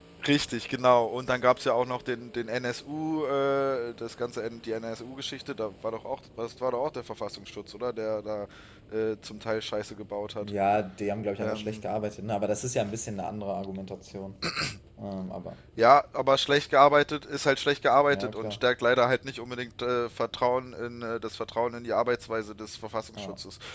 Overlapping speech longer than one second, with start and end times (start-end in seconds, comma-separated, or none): none